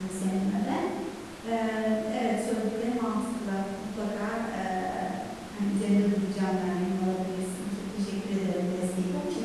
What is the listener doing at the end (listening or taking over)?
taking over